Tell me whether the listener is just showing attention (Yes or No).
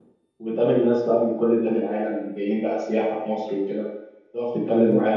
Yes